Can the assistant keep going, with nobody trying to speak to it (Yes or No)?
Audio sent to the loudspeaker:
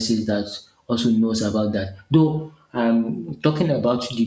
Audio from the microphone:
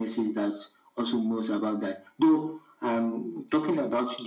Yes